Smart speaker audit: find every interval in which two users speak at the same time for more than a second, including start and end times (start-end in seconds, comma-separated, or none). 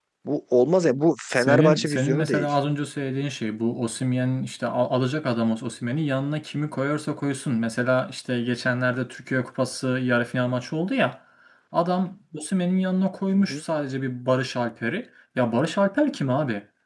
1.3-2.5